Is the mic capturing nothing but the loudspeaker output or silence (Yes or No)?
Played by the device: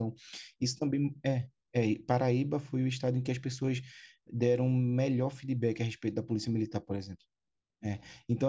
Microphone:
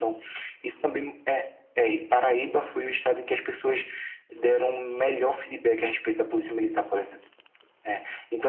Yes